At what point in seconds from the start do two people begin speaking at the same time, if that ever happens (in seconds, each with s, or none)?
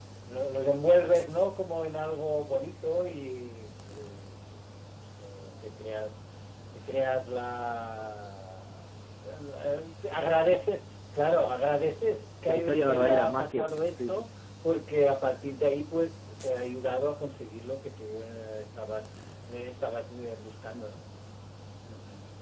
12.5 s